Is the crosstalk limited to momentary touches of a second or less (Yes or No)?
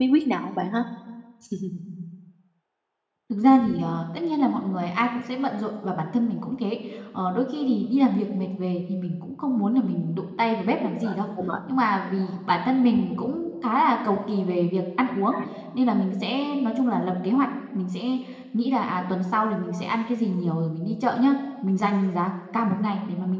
Yes